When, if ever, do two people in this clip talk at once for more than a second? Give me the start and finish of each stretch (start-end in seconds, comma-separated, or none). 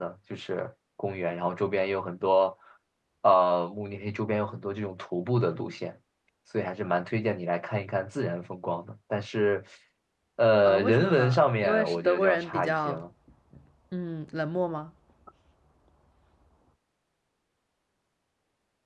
10.6-13.0